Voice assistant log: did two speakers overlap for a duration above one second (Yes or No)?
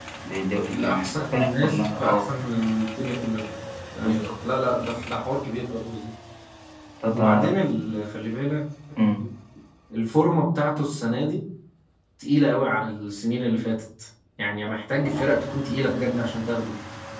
Yes